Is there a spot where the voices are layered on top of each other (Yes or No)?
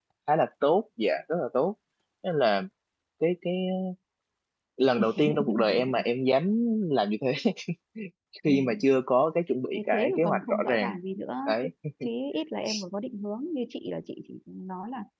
Yes